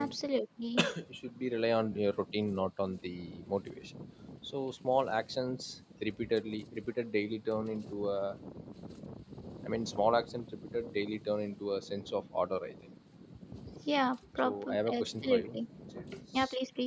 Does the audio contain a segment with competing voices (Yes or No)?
Yes